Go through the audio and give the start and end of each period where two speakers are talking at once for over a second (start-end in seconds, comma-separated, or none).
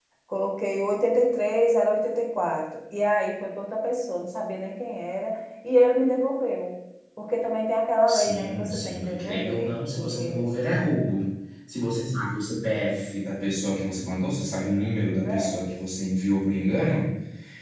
8.1-10.5